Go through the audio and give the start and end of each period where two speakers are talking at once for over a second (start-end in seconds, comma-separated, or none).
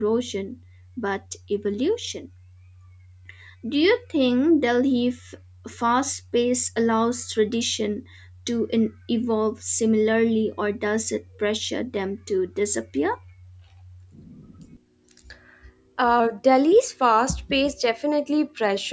none